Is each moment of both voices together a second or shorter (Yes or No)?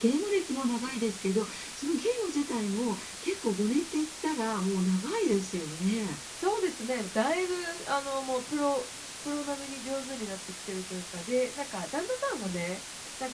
Yes